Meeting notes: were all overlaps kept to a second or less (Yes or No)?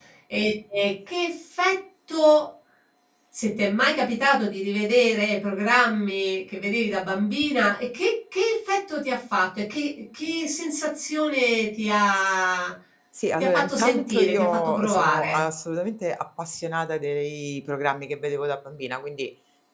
No